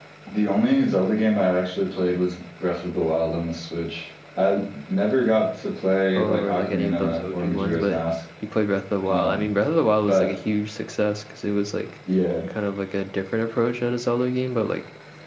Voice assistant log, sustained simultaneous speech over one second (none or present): present